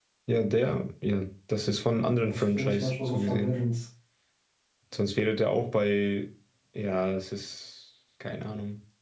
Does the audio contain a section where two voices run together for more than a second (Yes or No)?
Yes